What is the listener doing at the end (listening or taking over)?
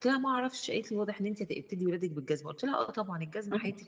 listening